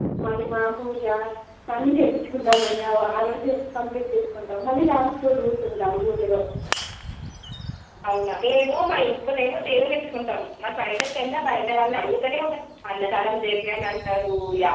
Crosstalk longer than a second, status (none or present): none